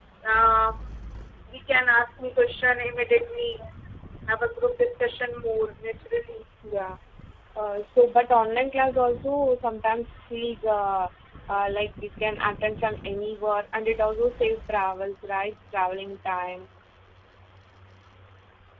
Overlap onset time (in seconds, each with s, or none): none